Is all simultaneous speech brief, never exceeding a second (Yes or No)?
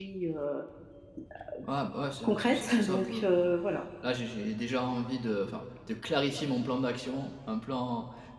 No